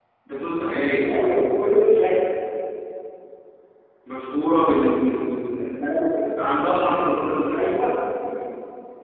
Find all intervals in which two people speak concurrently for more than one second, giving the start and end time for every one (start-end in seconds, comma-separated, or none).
none